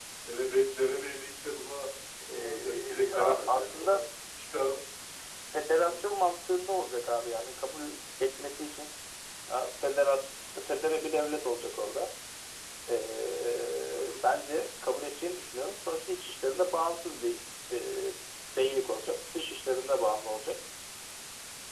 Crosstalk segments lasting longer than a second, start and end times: 2.3-4.0

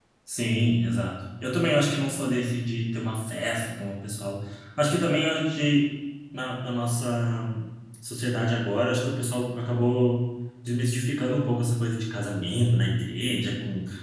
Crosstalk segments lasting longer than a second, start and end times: none

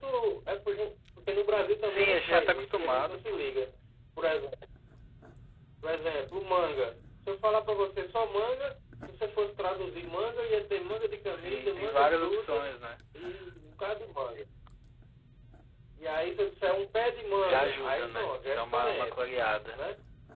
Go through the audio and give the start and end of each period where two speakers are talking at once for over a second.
1.9-3.4, 11.3-12.7, 17.4-19.2

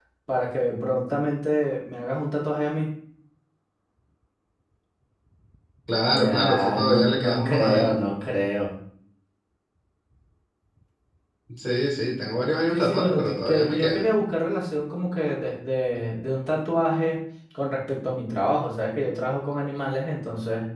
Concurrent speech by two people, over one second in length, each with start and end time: 6.2-8.0, 12.7-14.0

